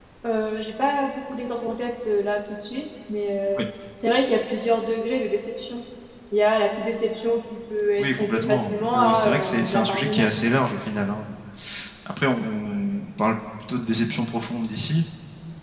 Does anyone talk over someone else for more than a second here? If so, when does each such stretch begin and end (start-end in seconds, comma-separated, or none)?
8.0-10.3